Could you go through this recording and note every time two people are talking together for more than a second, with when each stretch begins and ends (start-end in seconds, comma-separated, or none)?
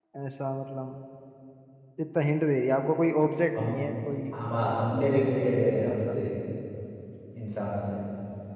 4.5-6.0